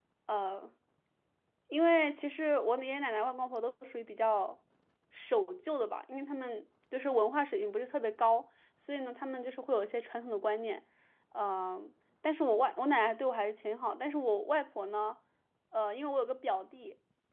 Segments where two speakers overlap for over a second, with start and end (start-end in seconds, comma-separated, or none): none